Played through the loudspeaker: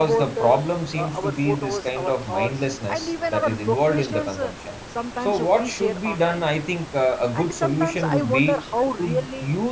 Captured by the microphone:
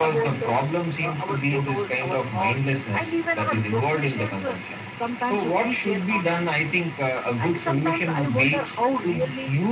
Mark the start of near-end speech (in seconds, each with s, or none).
none